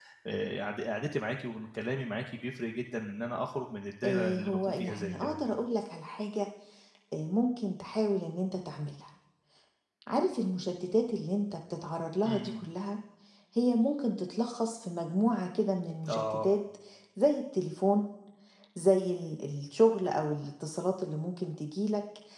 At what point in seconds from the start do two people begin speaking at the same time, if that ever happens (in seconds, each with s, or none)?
4.0 s